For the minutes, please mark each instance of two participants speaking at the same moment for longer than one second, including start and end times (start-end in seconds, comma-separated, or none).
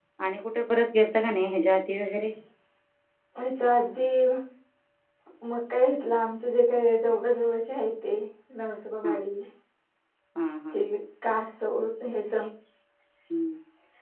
none